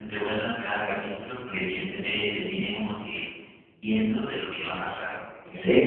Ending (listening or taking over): listening